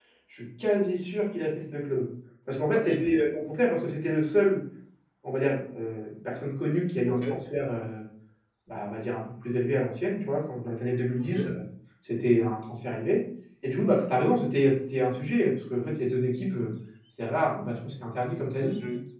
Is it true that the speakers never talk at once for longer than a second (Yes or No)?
Yes